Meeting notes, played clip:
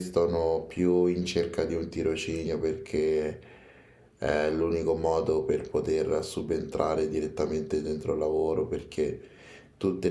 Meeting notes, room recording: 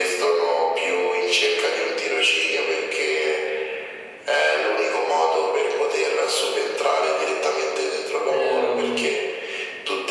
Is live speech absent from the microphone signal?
No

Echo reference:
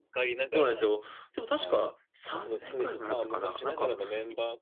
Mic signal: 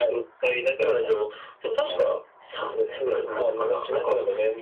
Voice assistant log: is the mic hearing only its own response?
Yes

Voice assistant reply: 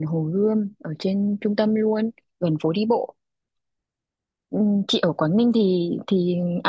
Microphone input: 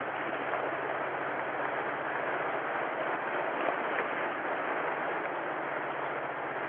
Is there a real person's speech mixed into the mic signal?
No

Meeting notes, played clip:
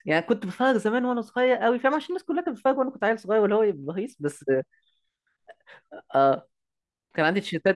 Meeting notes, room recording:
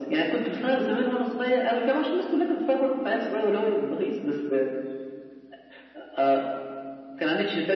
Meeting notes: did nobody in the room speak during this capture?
Yes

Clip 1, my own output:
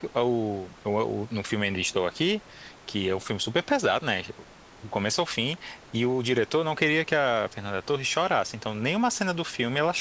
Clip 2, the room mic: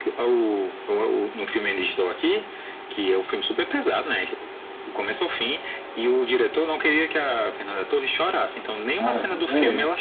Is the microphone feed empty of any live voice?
No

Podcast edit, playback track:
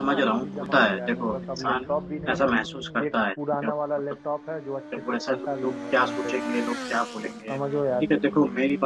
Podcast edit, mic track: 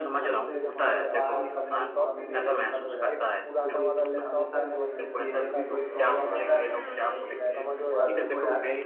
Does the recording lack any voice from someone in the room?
No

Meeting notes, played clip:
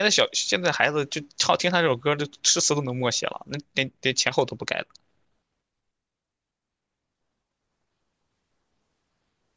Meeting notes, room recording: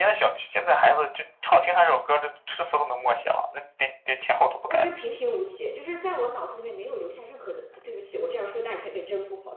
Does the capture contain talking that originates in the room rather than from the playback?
Yes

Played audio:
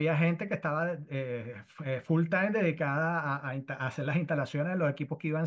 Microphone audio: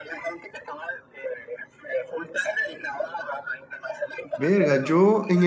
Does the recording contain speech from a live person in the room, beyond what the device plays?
Yes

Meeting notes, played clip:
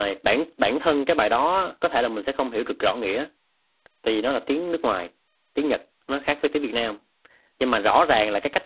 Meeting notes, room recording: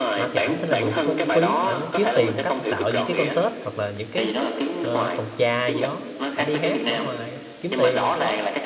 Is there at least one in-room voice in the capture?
Yes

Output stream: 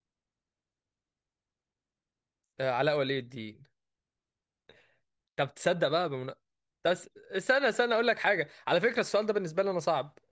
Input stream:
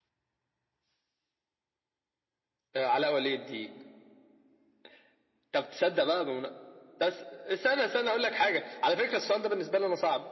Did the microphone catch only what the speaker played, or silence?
Yes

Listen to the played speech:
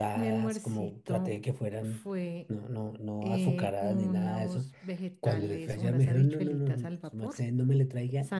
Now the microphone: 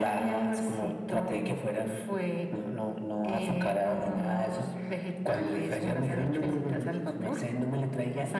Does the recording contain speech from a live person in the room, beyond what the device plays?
Yes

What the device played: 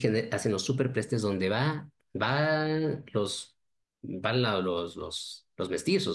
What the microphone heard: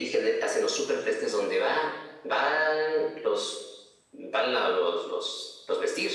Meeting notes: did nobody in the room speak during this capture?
Yes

